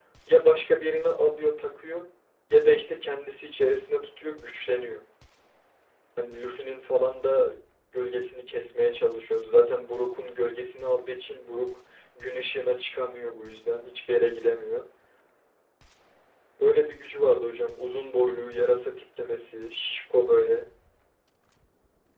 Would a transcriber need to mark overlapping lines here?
No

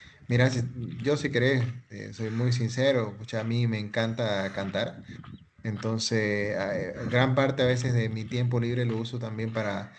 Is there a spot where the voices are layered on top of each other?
No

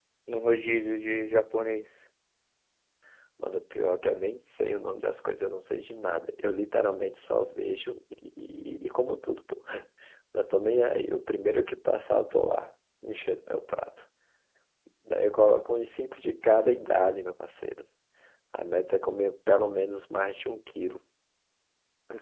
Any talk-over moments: No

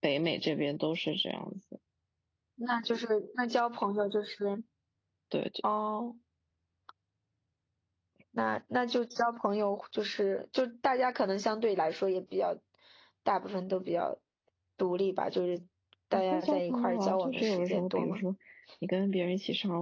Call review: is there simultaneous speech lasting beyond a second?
Yes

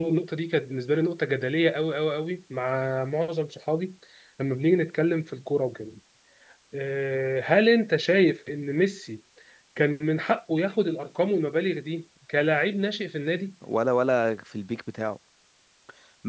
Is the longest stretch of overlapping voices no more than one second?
Yes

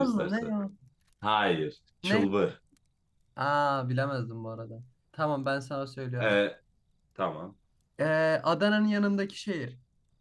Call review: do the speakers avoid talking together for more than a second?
Yes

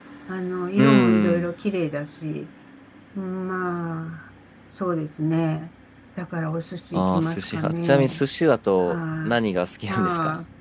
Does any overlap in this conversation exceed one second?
Yes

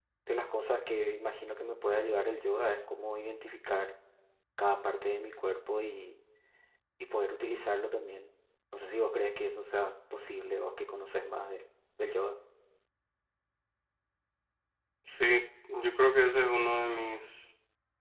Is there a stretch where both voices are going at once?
No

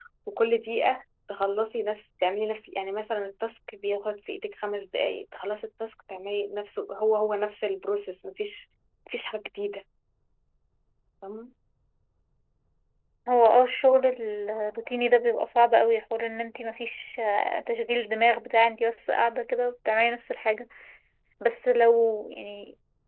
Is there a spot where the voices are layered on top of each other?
No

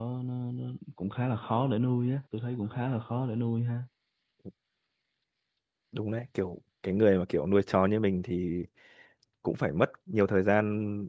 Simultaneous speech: No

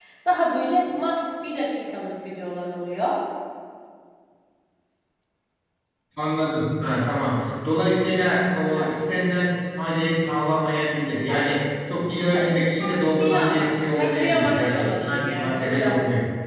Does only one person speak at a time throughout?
No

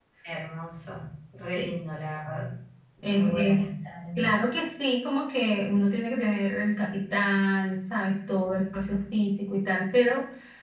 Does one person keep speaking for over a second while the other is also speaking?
No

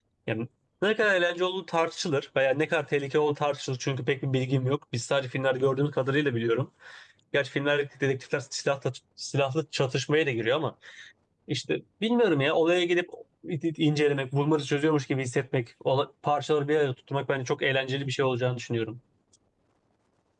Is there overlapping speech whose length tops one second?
No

